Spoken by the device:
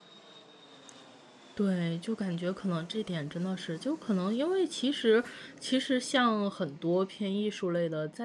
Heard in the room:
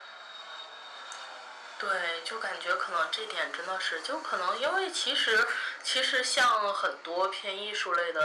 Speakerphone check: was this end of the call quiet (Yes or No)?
Yes